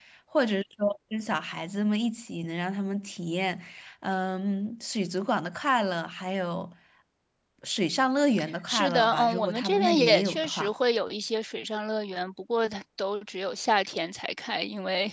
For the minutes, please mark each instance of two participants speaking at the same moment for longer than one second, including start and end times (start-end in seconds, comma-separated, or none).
8.7-10.7